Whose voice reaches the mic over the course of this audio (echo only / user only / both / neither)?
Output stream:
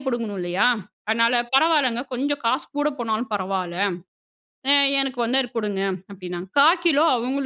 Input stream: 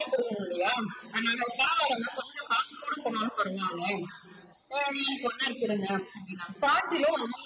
echo only